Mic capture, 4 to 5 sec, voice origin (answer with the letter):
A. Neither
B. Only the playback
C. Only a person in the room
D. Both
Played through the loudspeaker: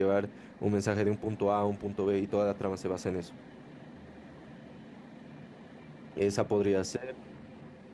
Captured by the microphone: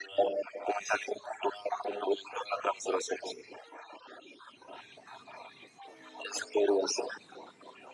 A